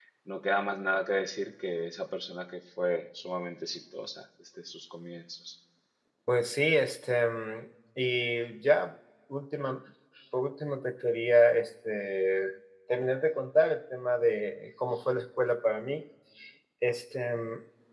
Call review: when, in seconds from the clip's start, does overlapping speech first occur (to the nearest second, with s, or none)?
none